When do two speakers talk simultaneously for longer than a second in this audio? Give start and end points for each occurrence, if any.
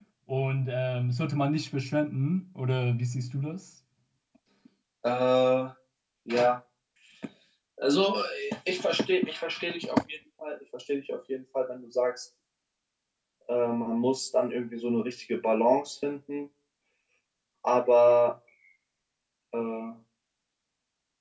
none

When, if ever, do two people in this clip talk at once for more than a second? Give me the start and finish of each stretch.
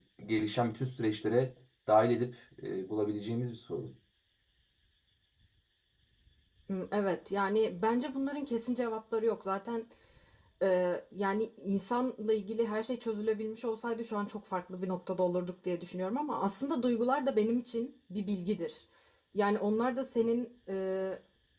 none

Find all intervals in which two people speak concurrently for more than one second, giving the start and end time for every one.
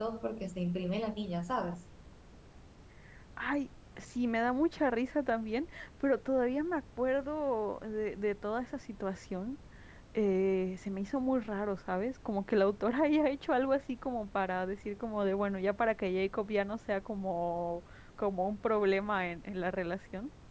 none

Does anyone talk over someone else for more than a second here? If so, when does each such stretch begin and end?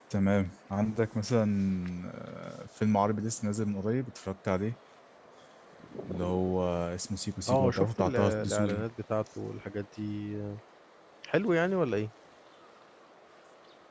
7.5-8.8

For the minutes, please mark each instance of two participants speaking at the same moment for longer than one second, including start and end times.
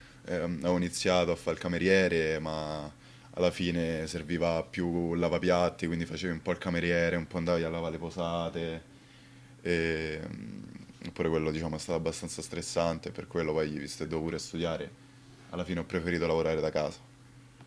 none

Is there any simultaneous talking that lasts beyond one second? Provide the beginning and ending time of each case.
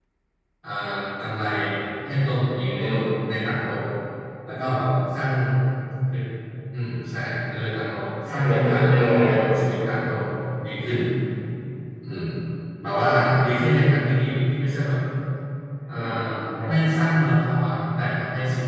8.3-9.5

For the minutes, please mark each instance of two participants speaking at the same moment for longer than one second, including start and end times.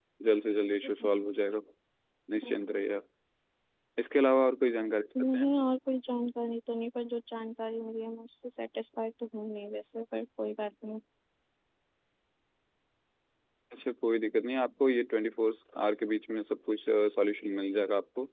none

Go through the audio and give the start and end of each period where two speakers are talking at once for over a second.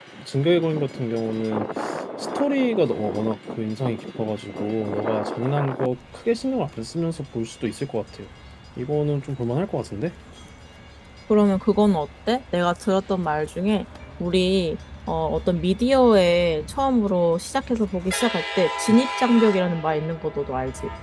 none

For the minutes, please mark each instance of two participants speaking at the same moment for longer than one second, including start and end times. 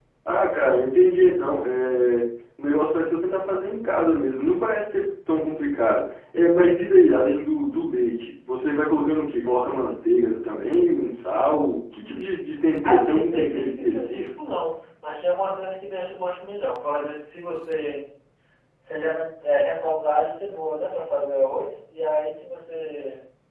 12.8-14.3

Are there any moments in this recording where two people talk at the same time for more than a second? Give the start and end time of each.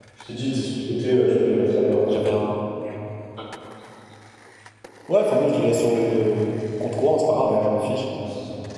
none

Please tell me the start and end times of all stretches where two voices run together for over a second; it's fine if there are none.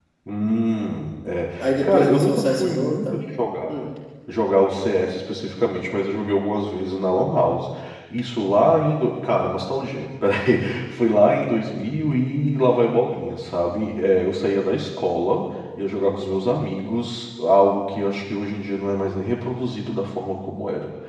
1.6-3.2

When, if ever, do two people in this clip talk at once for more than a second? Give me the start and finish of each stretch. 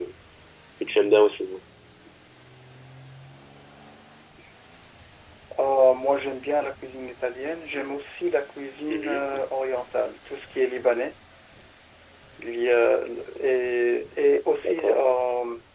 none

